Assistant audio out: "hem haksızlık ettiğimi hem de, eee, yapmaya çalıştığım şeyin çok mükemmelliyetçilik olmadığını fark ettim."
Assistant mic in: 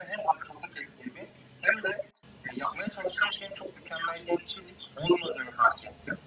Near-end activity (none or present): none